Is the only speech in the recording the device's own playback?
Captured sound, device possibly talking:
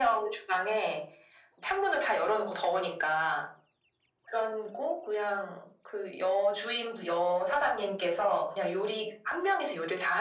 Yes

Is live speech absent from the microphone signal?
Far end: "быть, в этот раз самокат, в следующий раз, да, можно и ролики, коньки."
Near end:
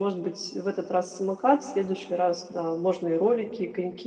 Yes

